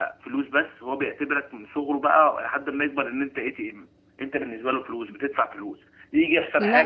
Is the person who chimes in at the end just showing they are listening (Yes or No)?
Yes